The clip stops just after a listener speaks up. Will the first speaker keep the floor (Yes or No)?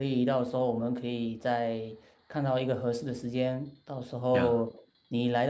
Yes